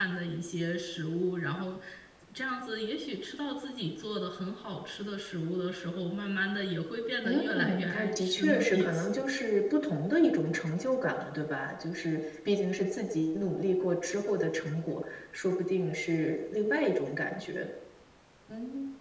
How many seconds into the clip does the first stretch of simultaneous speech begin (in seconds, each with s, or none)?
7.2 s